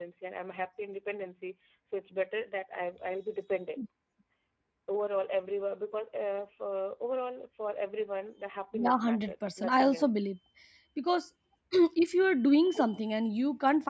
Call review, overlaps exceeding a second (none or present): present